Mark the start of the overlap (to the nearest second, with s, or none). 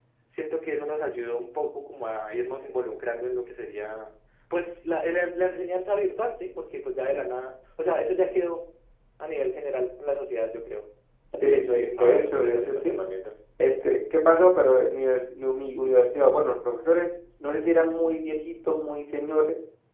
11 s